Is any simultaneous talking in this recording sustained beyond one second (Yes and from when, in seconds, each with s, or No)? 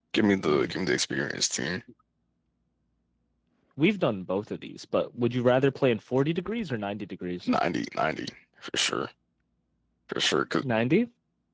No